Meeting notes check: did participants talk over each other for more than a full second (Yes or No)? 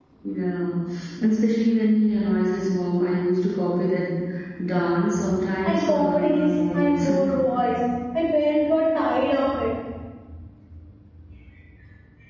Yes